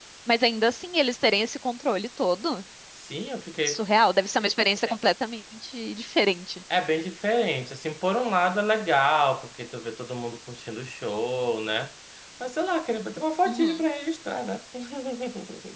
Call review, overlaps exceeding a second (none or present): none